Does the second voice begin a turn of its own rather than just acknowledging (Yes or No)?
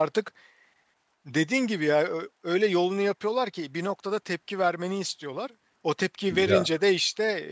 No